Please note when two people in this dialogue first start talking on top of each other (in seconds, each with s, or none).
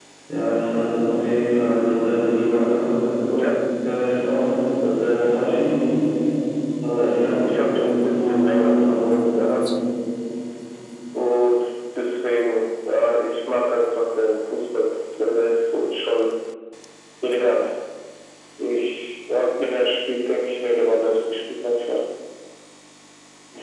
7.4 s